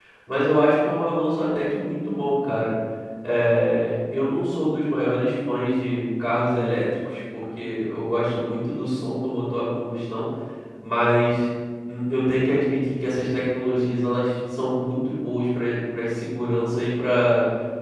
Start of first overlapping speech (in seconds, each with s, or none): none